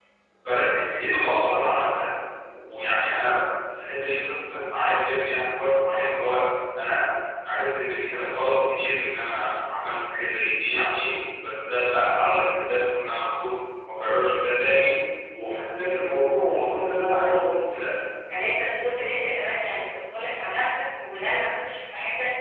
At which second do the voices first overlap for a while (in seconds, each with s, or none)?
none